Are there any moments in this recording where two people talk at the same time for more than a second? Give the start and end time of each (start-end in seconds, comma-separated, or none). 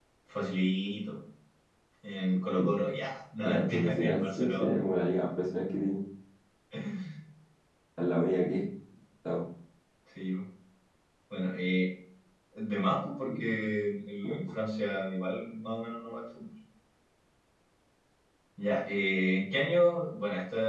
3.5-4.8